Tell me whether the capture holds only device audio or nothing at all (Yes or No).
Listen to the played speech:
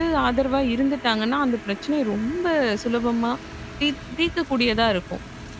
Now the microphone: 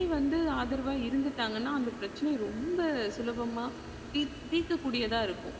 Yes